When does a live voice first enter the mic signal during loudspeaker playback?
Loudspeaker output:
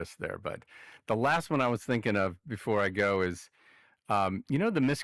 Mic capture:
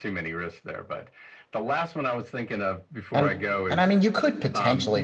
3.1 s

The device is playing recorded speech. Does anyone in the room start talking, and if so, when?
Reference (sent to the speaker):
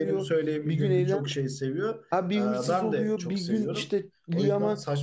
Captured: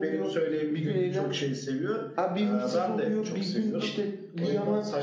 none

